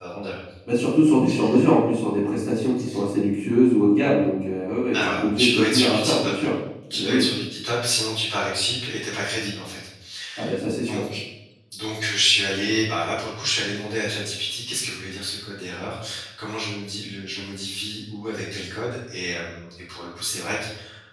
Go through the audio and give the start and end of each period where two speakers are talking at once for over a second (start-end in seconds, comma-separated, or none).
4.9-6.3